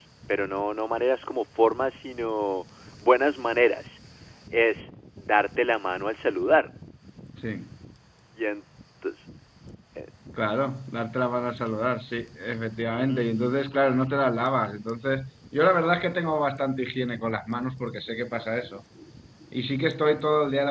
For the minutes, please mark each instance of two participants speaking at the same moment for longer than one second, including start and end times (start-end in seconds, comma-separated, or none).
none